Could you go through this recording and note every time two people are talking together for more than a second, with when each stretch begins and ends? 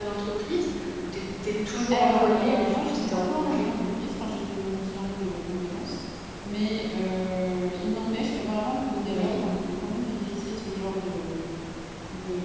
1.9-3.7

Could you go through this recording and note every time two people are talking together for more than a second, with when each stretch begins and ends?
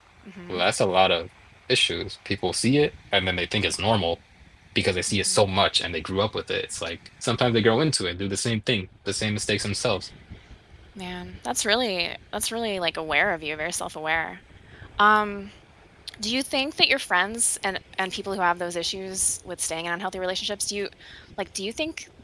none

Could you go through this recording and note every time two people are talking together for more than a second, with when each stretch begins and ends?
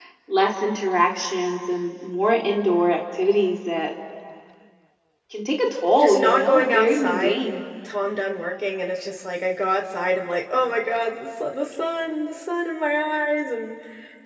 6.0-7.4

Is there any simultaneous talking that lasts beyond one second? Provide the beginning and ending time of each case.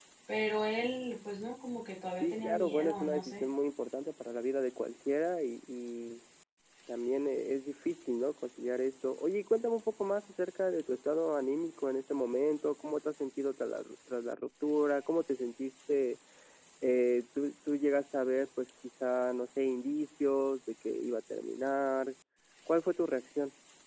2.2-3.5

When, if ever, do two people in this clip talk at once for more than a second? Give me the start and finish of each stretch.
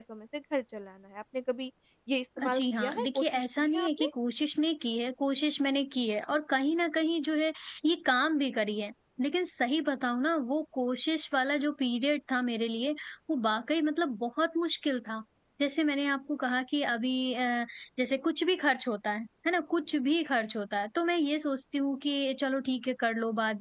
2.4-4.1

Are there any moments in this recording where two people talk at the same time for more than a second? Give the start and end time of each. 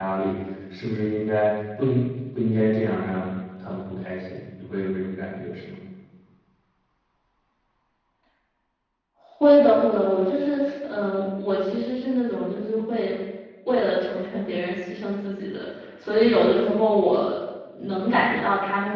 none

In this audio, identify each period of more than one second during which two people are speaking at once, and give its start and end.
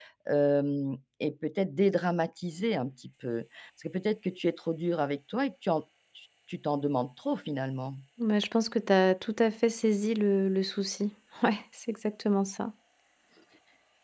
none

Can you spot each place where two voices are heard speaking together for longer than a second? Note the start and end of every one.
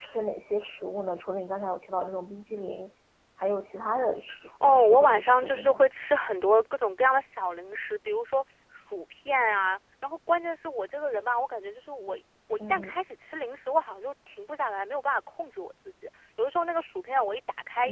4.6-5.8

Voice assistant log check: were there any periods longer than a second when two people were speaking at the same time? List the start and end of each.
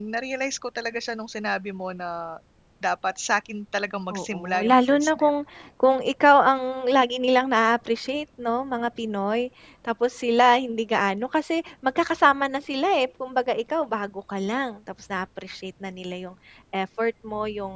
4.1-5.3

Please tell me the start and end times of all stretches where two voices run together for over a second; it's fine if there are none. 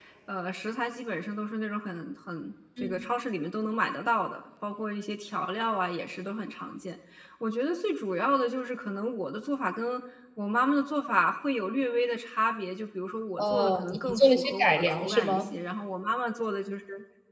13.4-15.5

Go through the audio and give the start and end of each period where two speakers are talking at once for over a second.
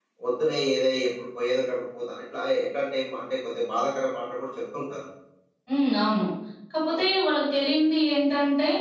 none

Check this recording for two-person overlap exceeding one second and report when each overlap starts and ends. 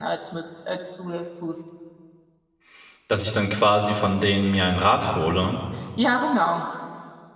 none

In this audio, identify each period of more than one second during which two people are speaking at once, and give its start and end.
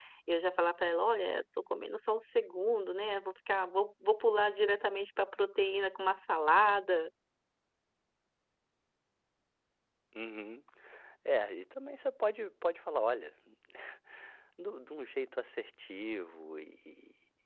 none

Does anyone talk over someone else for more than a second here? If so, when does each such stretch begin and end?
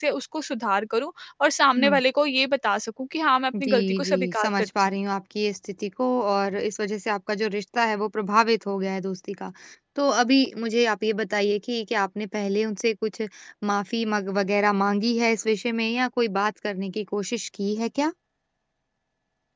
3.6-5.0

